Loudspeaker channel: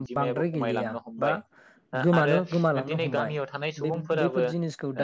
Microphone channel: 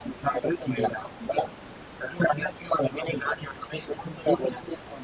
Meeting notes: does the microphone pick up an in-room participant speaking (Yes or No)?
No